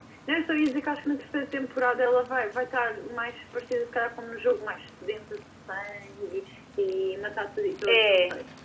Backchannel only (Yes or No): No